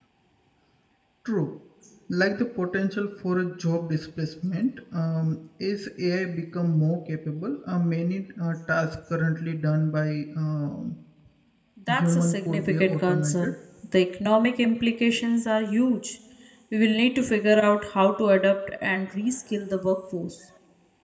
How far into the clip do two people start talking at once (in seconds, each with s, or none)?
11.9 s